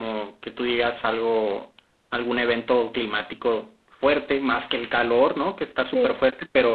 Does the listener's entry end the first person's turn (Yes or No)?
No